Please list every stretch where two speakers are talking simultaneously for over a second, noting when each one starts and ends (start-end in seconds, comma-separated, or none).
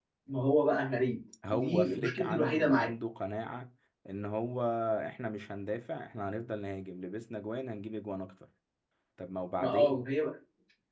1.5-2.9